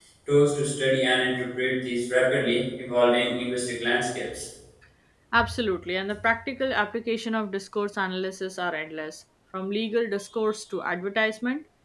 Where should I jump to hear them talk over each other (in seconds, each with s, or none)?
none